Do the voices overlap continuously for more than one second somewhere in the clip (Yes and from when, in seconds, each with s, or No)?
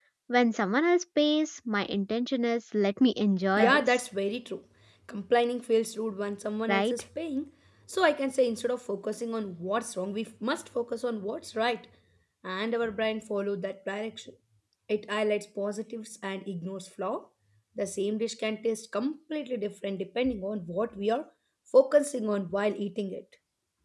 No